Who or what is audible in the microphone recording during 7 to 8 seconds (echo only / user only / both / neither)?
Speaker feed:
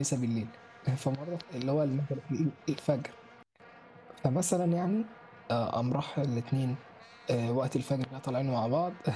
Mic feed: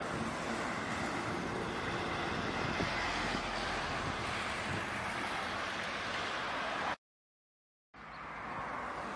neither